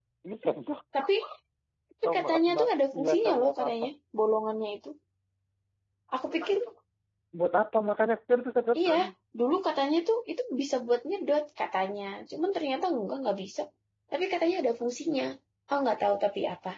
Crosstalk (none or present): present